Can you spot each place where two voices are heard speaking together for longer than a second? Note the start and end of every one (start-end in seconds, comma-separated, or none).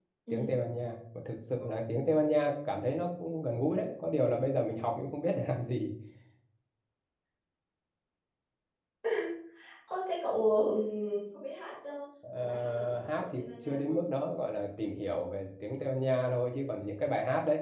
12.3-14.0